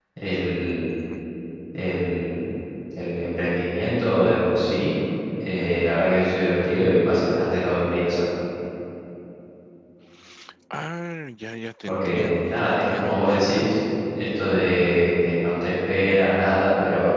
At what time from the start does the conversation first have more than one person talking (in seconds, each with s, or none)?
11.9 s